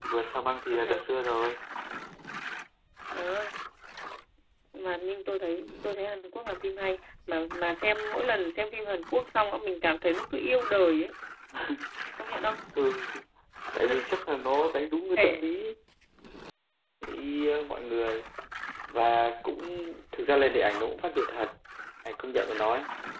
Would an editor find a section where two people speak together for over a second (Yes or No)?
No